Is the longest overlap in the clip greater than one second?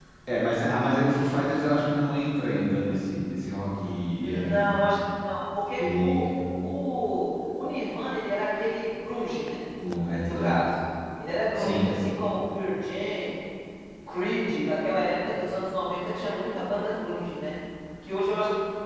No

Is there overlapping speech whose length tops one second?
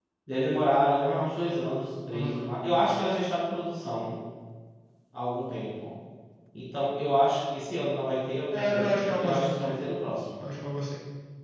Yes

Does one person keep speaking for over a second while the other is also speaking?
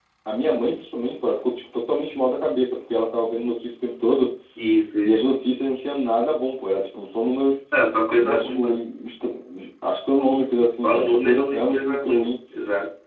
Yes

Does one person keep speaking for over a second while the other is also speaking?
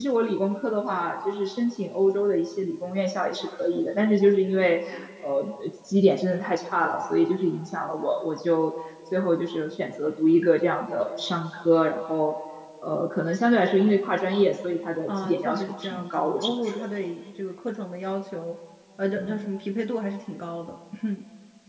Yes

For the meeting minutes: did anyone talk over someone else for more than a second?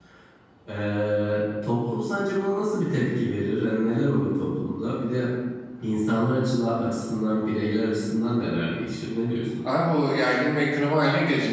No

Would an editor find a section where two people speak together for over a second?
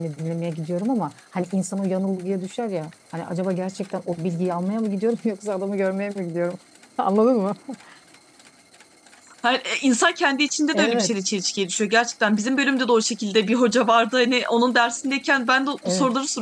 No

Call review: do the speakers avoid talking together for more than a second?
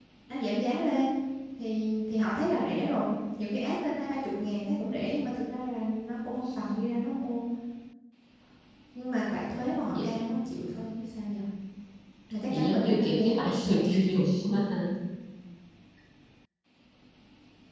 No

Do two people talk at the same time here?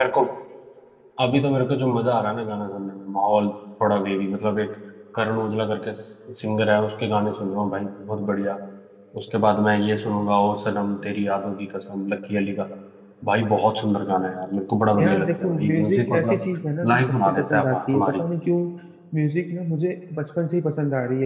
Yes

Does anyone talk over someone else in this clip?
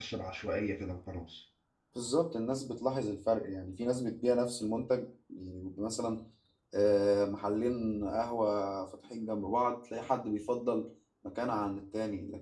No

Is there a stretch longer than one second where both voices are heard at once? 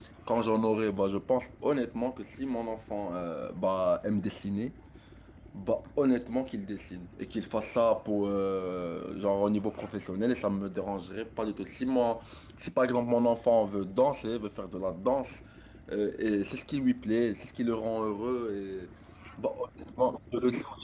No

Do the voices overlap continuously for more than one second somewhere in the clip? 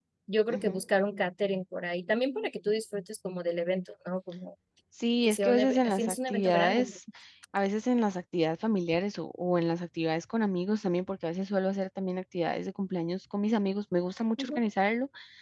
Yes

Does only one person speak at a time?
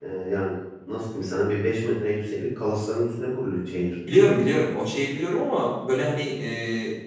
Yes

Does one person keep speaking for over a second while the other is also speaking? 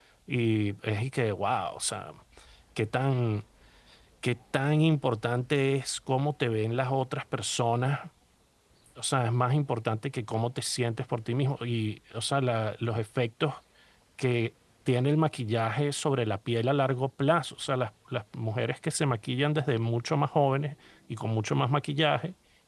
No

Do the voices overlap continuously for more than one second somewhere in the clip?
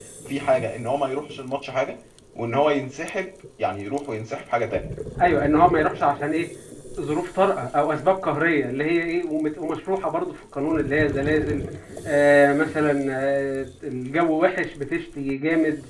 No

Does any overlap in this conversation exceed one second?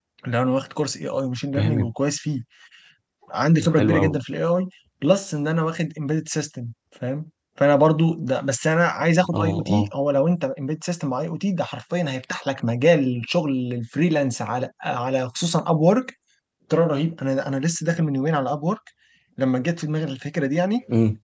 No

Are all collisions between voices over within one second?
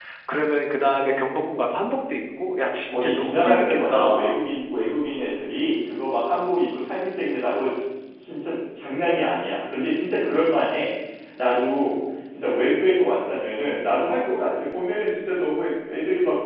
No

